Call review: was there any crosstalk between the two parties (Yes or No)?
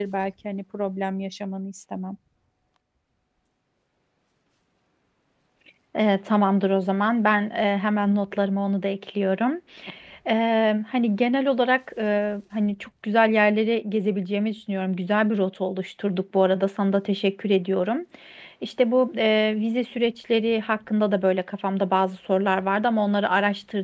No